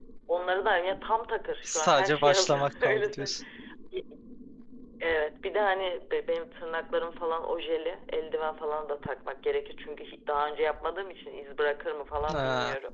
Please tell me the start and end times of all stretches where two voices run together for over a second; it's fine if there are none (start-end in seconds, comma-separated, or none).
1.6-3.3